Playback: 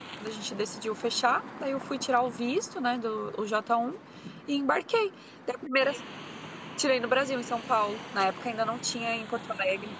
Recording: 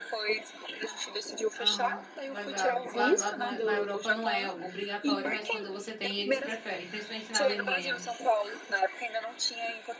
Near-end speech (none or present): present